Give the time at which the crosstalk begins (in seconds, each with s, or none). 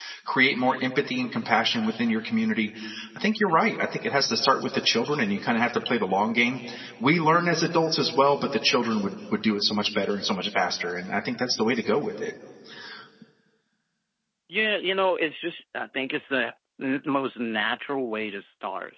none